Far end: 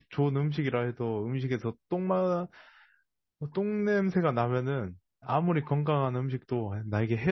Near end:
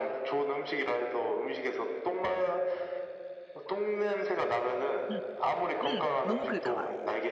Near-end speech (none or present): present